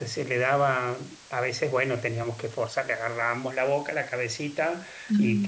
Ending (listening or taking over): listening